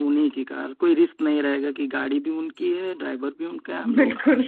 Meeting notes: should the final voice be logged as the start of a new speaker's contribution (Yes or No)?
No